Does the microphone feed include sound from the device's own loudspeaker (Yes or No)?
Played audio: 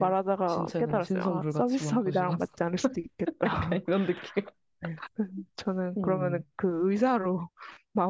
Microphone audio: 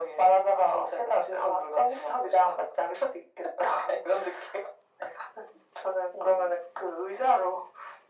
Yes